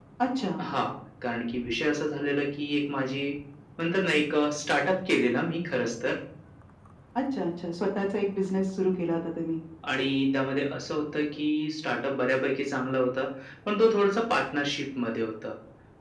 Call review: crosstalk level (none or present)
none